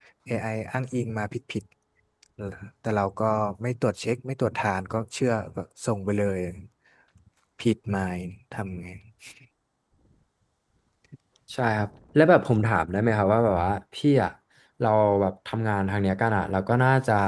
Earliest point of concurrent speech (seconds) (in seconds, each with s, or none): none